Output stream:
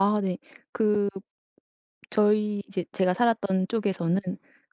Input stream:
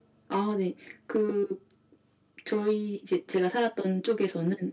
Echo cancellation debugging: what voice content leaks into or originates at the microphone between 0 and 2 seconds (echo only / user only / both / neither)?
echo only